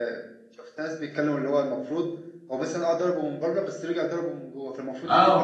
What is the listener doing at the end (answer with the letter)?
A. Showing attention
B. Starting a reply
B